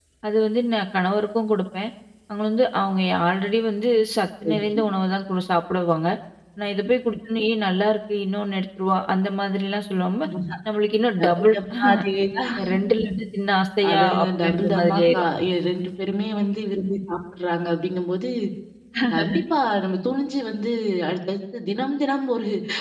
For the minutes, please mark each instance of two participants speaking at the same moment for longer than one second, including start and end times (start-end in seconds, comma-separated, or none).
13.9-15.2